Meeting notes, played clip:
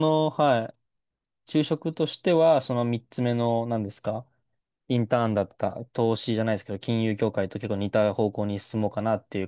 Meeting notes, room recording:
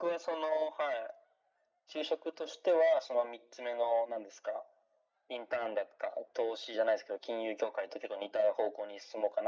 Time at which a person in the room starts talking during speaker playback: none

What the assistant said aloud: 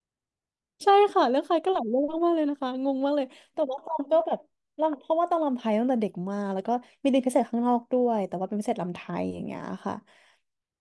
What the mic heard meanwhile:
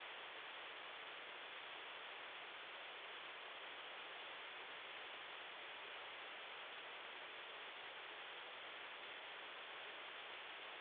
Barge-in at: none

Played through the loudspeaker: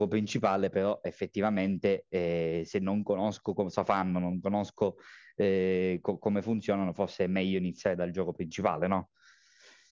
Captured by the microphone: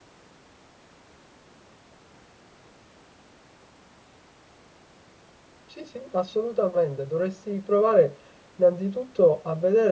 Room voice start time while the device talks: 5.6 s

